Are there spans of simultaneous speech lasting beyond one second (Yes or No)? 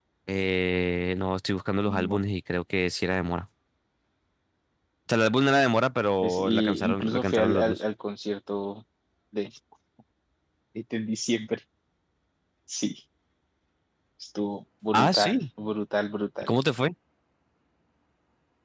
Yes